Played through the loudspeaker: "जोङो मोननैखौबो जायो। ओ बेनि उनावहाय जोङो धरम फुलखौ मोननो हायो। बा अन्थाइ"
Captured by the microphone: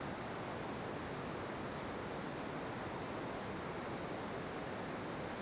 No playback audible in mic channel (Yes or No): Yes